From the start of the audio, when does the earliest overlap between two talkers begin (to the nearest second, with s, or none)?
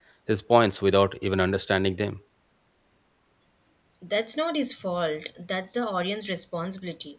none